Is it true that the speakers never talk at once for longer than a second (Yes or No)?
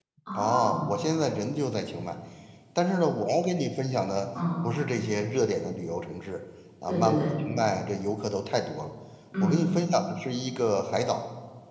Yes